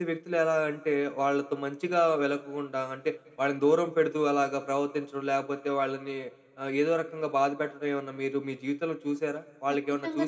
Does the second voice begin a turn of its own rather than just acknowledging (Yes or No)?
Yes